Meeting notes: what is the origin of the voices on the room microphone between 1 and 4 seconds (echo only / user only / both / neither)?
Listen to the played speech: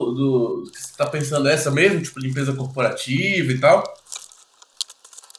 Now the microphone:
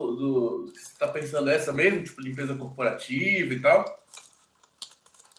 echo only